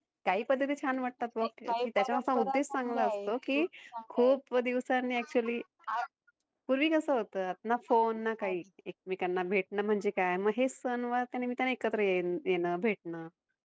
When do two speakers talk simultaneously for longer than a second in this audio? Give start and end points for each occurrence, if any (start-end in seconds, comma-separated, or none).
1.7-3.6